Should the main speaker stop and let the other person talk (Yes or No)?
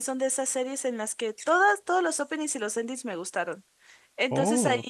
No